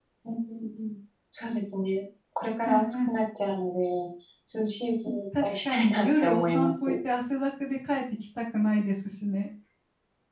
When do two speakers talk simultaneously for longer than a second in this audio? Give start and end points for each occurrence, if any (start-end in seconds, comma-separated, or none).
5.4-6.7